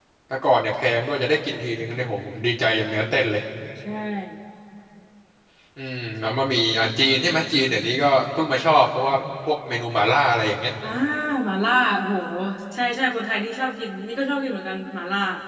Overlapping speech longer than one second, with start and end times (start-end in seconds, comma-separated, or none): none